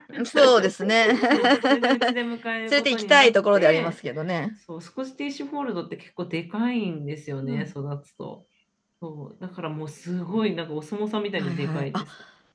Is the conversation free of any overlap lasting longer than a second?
No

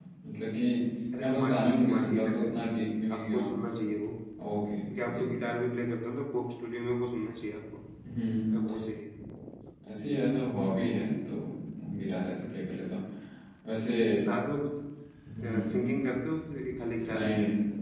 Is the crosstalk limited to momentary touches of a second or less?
No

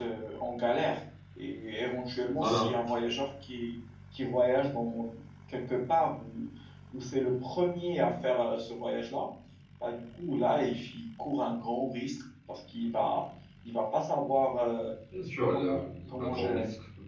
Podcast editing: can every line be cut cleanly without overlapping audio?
No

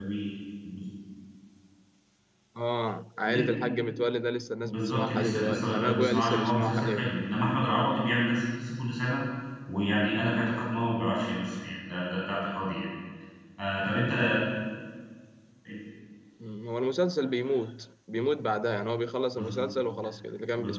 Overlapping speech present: Yes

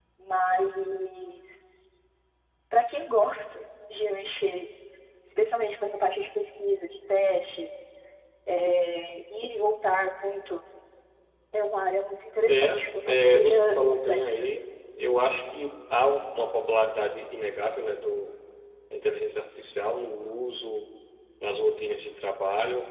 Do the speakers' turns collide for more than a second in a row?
Yes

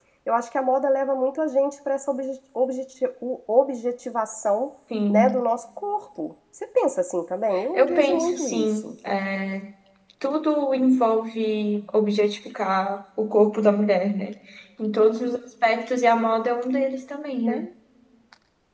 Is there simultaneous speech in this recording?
Yes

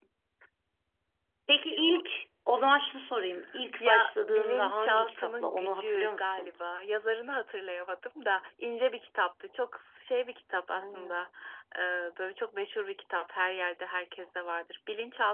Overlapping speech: Yes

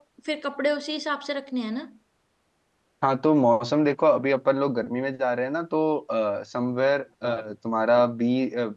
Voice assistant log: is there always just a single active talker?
Yes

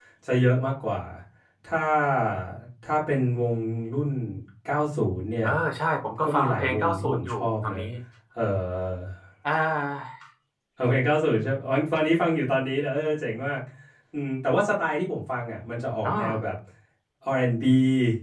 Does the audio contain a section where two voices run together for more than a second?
Yes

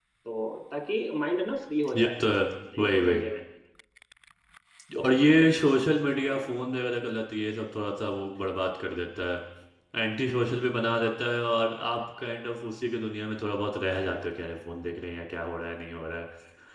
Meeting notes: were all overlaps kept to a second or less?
Yes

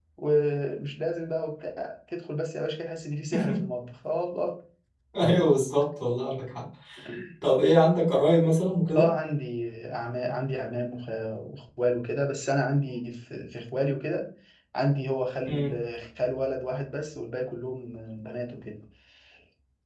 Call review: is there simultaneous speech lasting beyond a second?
No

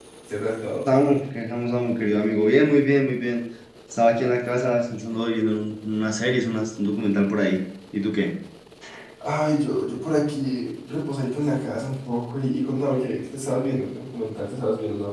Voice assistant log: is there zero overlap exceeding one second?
Yes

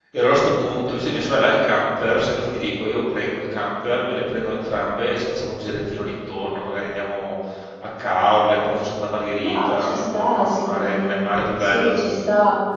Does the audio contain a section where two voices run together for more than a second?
Yes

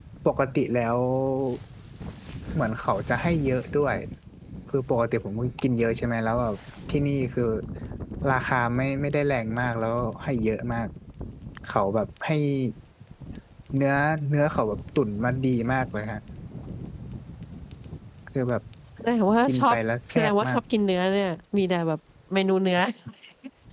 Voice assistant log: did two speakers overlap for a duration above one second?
No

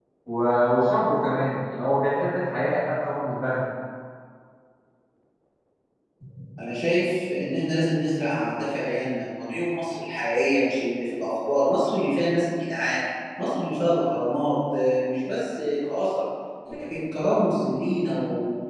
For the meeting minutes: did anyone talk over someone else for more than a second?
No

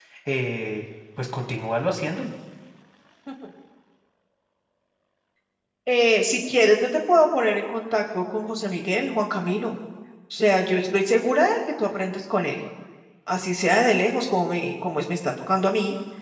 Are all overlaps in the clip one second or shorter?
Yes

